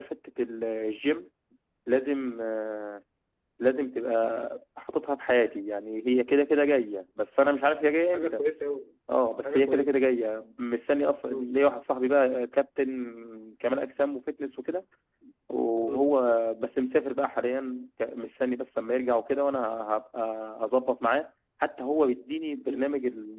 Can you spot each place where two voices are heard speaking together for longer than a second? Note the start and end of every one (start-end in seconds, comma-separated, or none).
none